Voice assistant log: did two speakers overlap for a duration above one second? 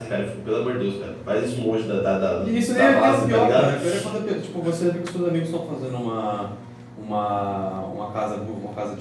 Yes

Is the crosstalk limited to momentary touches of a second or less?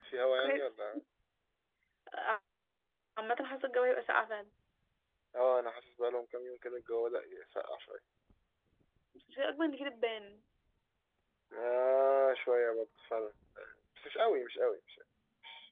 Yes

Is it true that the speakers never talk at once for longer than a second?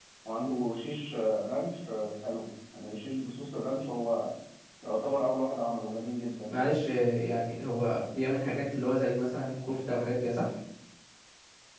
Yes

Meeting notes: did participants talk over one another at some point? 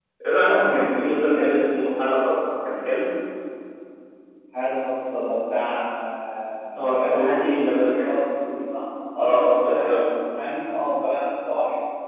Yes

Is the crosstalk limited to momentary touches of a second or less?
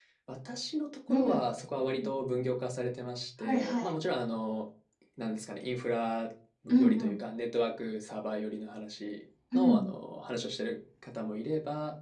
Yes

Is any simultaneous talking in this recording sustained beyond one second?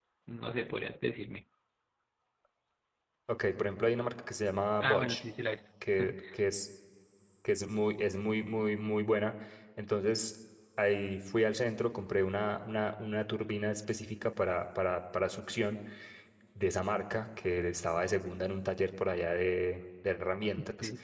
No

